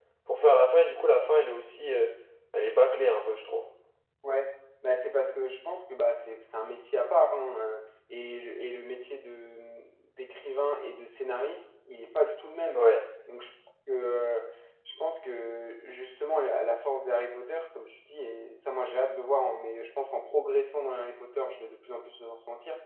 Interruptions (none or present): none